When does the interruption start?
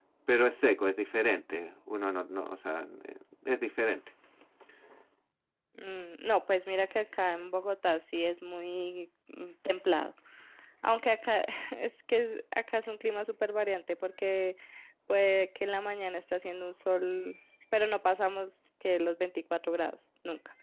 none

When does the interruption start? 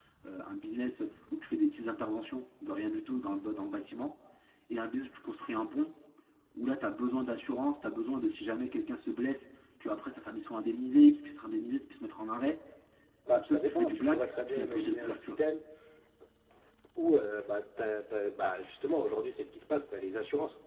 13.3 s

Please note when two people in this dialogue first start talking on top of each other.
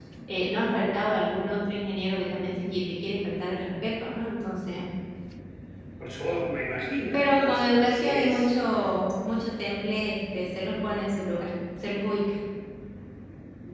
7.0 s

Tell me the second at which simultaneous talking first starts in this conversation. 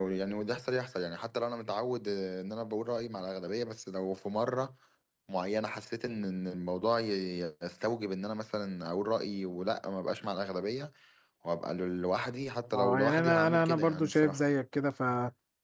12.7 s

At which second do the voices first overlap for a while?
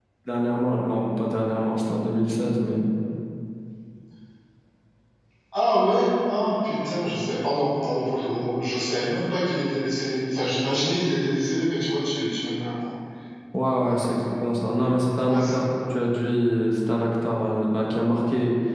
13.8 s

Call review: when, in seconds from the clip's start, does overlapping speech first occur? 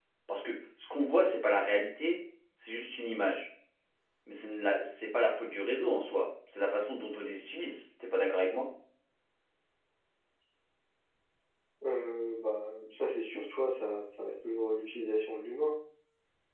none

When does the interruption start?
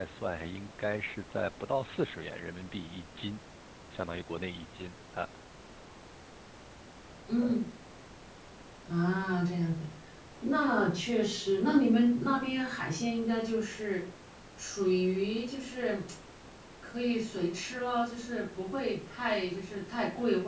none

